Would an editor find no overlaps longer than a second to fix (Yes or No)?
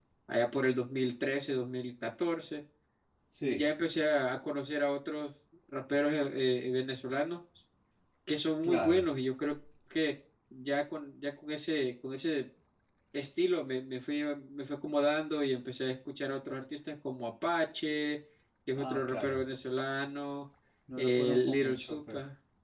No